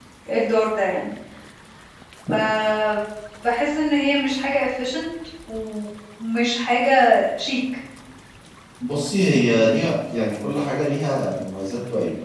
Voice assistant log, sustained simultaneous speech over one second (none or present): none